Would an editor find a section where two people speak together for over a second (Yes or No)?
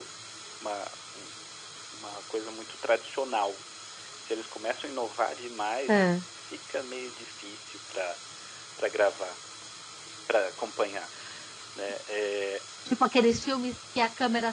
No